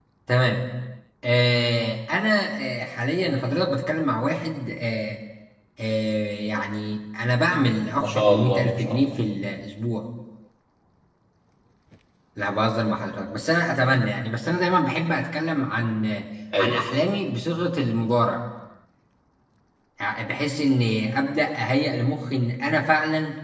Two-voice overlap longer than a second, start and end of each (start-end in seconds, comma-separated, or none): 8.0-9.2